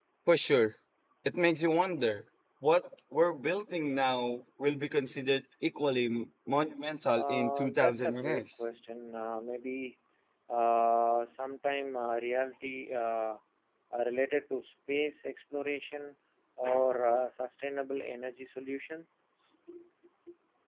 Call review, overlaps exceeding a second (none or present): present